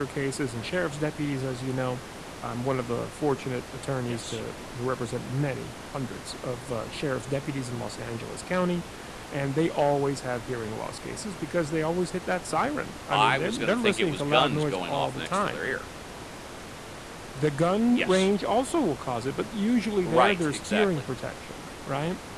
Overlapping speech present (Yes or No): Yes